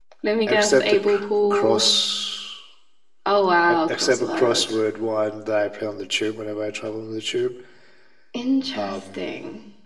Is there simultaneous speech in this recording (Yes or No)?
Yes